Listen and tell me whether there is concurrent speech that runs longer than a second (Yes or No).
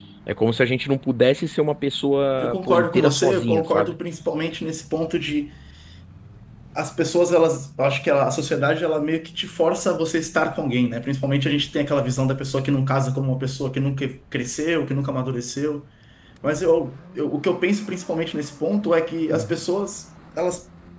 Yes